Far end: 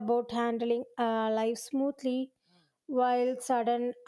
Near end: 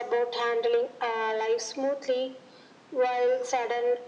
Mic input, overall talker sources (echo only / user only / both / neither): echo only